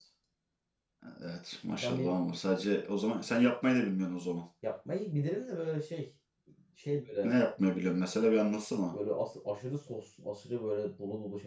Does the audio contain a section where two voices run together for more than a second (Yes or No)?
No